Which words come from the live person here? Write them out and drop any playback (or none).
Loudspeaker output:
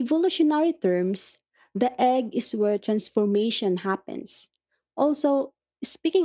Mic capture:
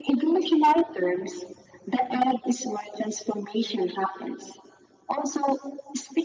none